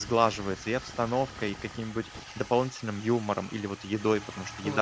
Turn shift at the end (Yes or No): Yes